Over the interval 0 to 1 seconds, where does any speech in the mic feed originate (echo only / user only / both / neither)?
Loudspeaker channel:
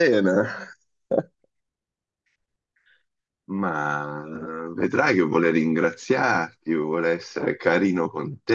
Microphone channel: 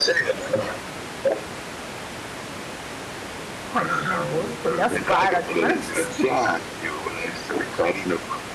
echo only